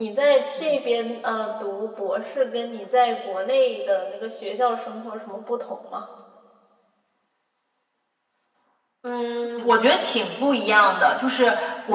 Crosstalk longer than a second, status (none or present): none